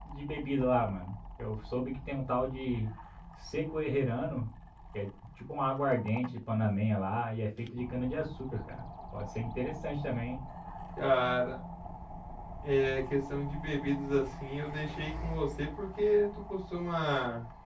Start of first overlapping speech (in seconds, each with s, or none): none